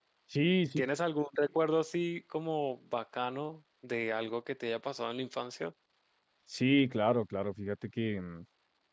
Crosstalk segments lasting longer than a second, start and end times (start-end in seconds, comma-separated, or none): none